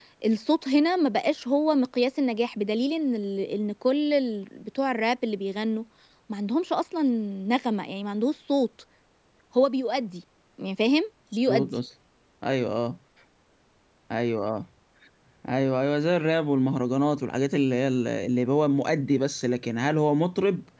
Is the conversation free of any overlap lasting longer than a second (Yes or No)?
Yes